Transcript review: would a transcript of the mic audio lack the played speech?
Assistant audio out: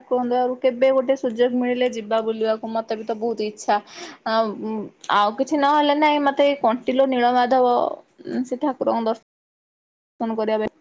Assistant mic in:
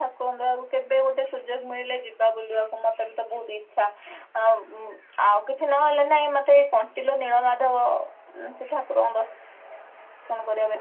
No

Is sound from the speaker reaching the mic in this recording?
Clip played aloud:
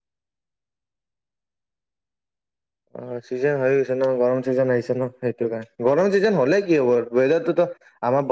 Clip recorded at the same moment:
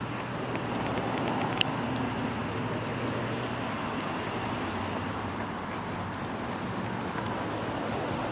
No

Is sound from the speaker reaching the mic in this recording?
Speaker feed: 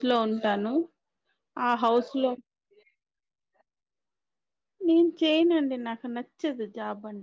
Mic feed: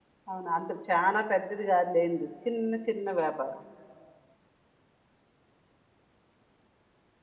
No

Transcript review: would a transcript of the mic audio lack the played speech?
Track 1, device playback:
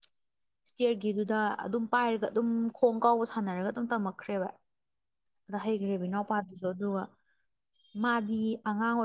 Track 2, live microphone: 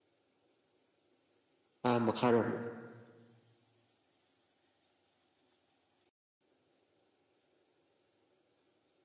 Yes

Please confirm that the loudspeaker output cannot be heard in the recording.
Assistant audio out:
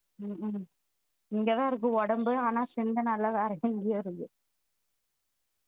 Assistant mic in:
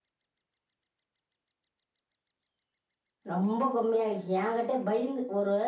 Yes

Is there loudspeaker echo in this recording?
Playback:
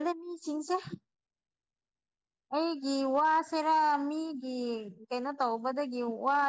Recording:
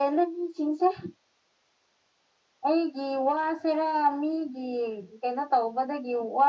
Yes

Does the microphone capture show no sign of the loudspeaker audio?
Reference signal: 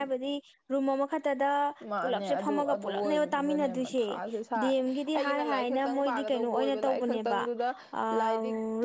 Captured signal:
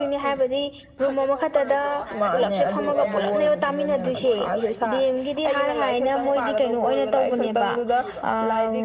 No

